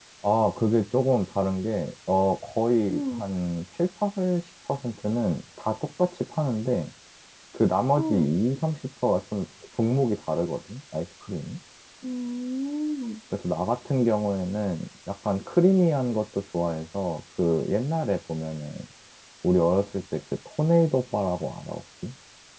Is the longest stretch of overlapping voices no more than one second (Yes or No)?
Yes